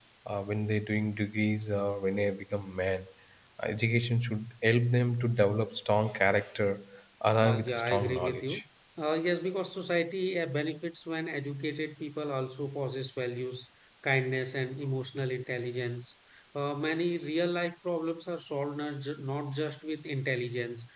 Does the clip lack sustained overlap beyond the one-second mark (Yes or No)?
No